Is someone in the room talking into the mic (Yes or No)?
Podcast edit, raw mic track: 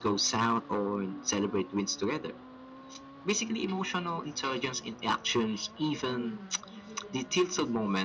No